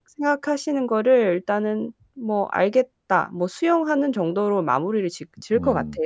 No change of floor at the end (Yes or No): No